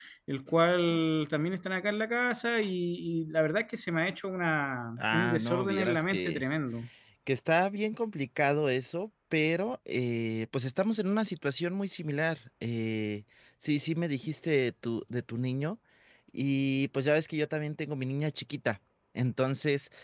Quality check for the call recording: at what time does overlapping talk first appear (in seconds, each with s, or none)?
5.0 s